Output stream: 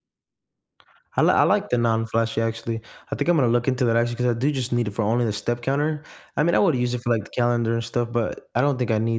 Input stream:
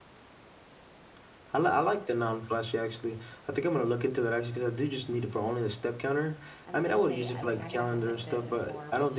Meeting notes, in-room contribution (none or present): present